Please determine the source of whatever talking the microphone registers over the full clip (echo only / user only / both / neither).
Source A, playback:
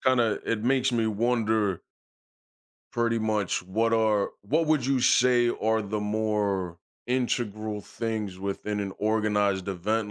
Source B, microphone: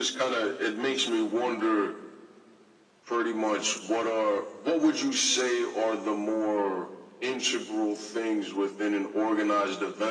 echo only